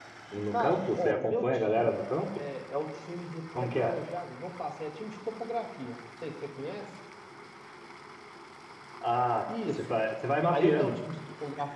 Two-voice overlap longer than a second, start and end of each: 0.5-2.0

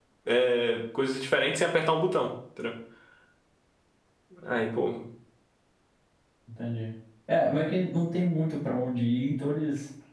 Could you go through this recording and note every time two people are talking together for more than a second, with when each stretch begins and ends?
none

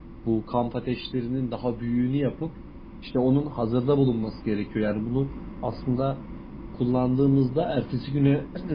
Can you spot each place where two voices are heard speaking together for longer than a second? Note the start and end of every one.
none

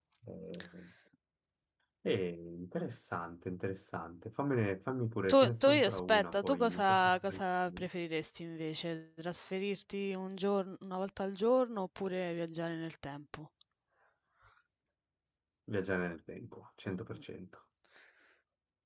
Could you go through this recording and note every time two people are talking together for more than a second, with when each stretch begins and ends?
5.3-7.9

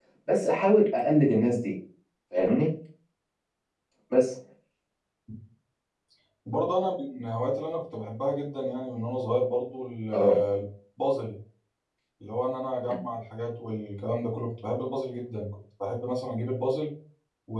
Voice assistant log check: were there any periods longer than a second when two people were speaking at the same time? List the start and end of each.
none

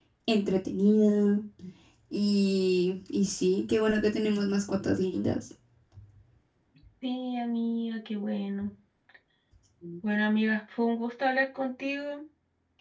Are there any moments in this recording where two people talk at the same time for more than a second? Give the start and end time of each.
none

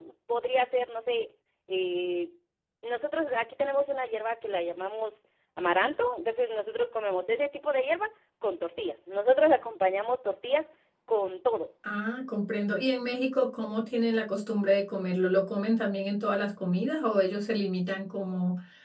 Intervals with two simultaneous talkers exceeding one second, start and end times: none

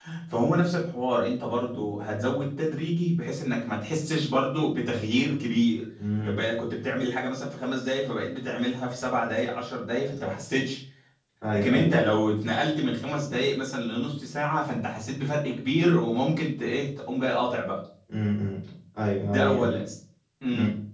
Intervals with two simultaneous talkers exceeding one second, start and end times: none

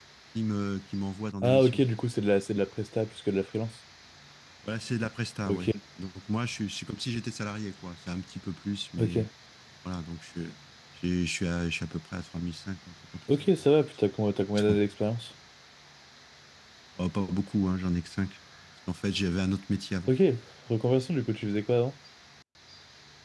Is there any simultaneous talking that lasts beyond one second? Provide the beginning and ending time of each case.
none

